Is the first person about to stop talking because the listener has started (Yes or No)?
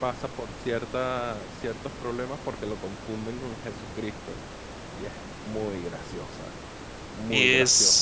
Yes